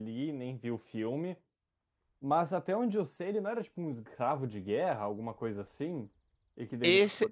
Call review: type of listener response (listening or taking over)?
taking over